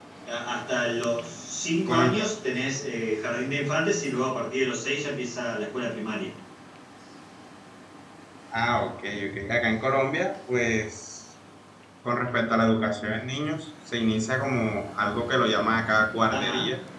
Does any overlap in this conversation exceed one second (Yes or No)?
No